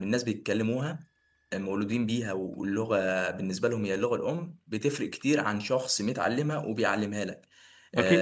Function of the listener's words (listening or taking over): listening